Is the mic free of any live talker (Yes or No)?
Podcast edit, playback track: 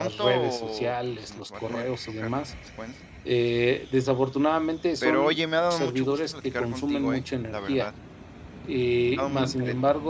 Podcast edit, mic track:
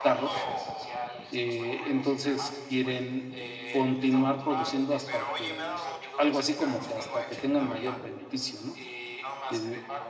No